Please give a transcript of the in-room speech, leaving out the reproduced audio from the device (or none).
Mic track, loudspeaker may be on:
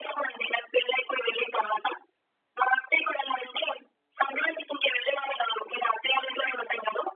none